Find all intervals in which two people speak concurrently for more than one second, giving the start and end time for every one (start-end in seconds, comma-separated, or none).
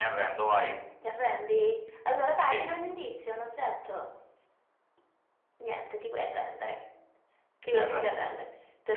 none